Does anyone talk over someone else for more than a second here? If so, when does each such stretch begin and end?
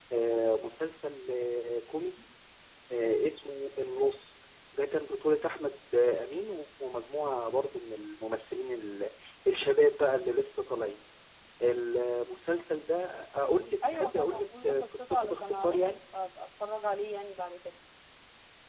13.9-15.8

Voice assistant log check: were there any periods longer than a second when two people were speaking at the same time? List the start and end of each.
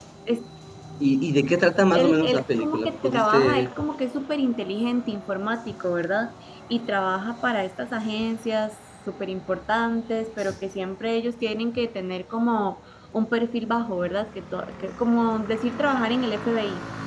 1.9-3.7

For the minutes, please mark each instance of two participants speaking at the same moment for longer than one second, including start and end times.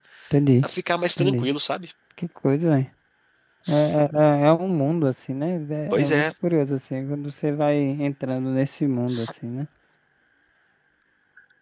none

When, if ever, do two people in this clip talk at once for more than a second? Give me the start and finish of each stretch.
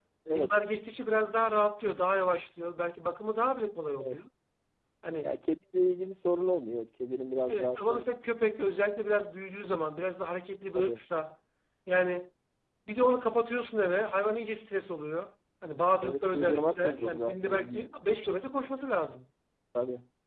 16.0-17.9

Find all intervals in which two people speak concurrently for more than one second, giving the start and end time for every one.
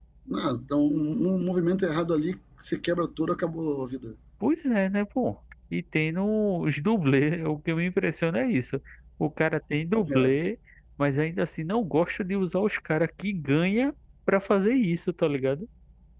none

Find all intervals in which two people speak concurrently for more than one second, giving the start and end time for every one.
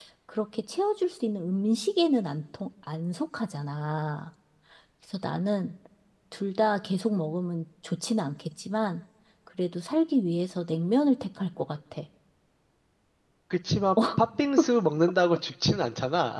none

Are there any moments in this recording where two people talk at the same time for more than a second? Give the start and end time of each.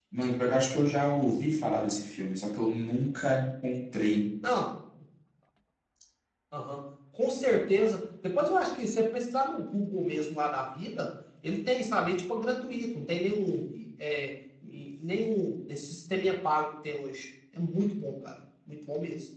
none

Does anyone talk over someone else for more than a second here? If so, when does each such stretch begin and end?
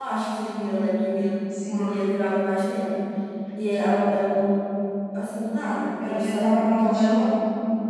6.0-7.3

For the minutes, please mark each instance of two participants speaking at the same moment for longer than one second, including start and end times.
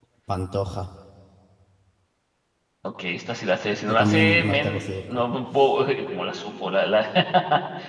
3.9-5.2

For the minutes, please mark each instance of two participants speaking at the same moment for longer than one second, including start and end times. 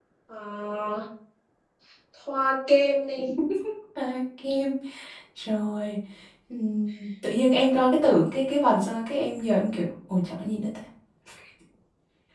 none

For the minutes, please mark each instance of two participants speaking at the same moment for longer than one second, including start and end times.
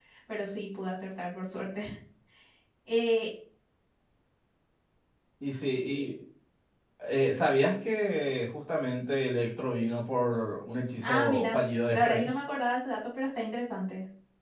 11.0-12.4

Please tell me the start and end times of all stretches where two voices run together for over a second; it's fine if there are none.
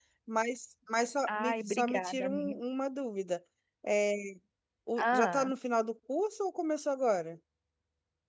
1.3-2.6

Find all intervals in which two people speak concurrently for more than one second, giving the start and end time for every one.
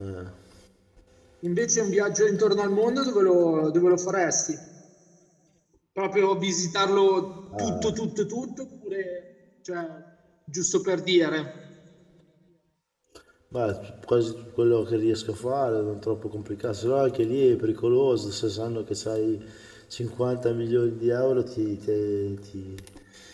none

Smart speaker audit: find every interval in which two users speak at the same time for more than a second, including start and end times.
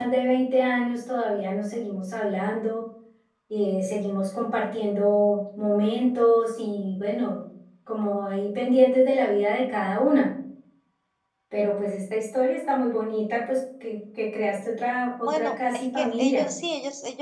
15.3-16.5

